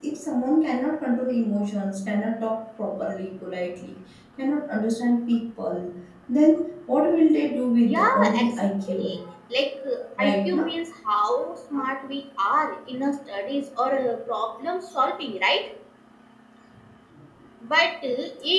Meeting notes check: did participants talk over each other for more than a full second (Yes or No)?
Yes